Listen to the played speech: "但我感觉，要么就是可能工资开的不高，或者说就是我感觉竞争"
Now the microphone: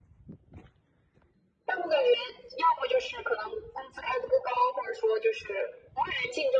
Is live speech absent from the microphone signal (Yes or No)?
Yes